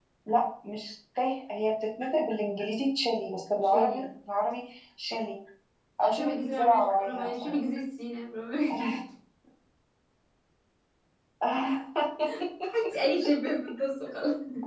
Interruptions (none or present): present